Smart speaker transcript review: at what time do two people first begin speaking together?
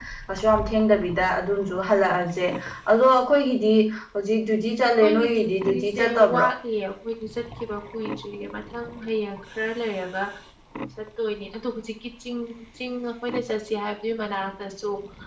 5.0 s

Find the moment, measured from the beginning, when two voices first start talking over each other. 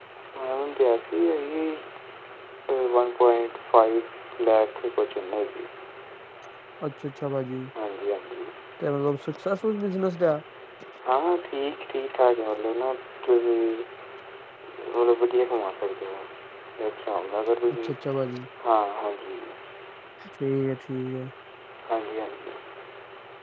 none

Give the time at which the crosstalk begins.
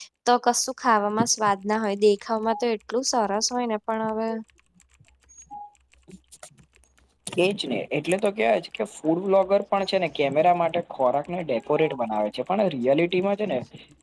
none

